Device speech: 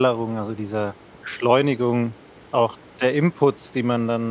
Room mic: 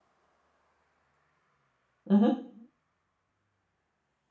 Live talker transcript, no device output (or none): Mhm.